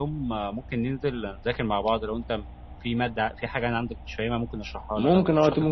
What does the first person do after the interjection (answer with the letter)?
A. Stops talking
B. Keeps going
A